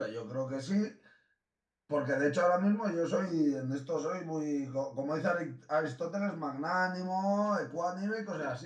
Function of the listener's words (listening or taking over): listening